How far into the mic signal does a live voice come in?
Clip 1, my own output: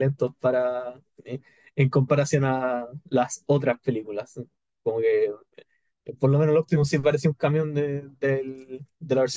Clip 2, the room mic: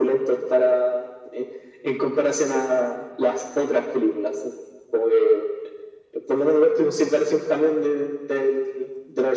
none

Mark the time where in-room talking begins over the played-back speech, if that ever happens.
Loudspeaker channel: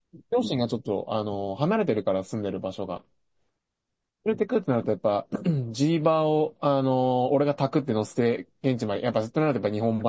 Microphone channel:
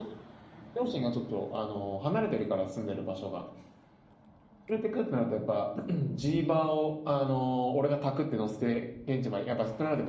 none

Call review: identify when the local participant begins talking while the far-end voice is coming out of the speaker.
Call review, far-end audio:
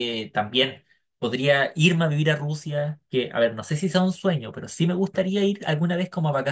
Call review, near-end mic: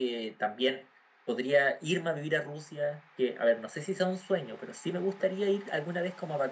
none

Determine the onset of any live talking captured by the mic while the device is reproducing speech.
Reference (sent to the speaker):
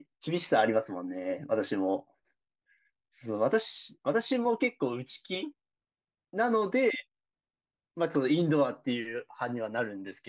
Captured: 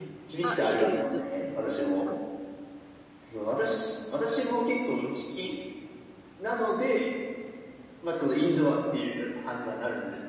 0 s

